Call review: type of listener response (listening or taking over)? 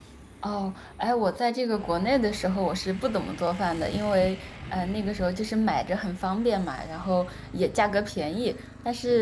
listening